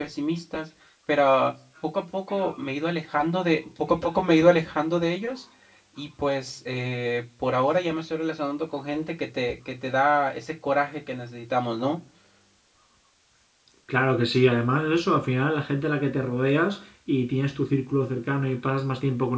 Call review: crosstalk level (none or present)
none